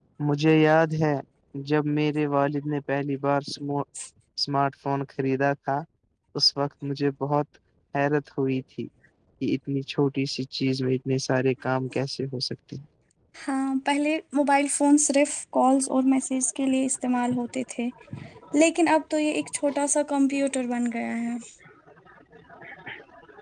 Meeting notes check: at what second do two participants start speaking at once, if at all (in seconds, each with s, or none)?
none